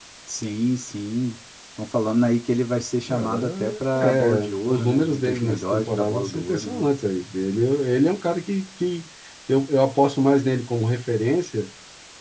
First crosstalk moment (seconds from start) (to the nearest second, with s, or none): 3 s